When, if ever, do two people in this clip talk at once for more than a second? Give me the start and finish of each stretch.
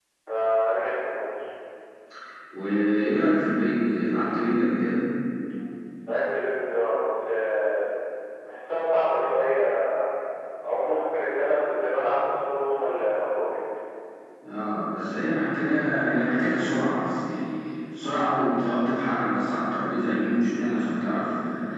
none

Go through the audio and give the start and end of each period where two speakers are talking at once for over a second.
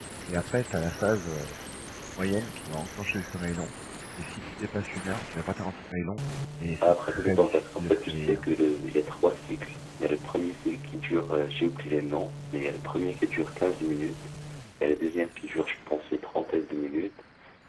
6.8-8.4

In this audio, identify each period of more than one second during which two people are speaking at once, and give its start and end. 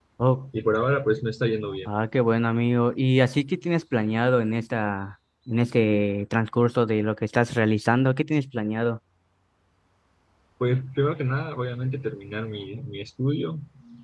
none

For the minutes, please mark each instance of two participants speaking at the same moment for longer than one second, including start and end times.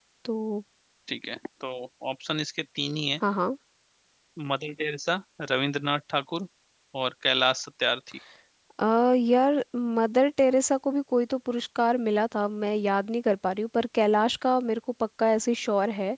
none

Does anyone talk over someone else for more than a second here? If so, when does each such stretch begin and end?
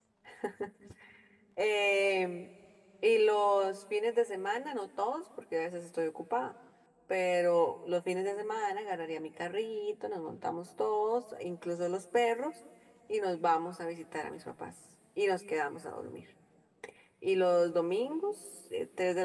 none

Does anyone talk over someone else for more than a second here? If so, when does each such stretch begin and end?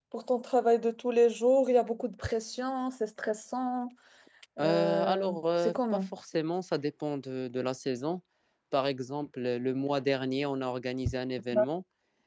4.6-6.0

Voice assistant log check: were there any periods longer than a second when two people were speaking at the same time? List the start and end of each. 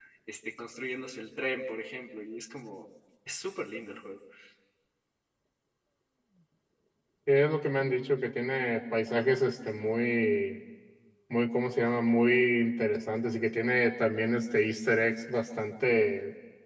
none

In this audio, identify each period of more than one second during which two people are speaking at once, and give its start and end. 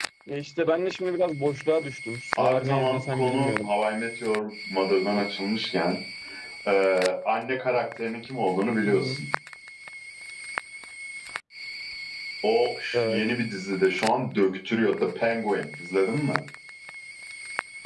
2.4-3.7

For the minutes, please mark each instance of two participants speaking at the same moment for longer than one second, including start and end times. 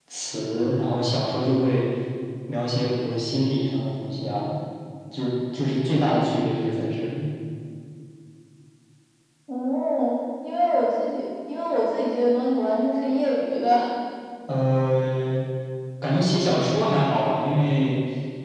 none

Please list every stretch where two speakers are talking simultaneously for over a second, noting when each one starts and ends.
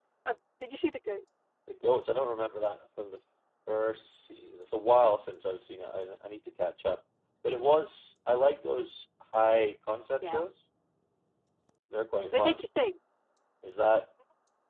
none

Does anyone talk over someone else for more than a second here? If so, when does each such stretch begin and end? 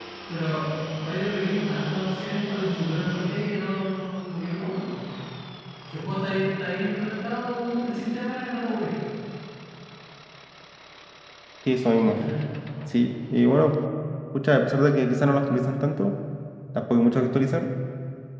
none

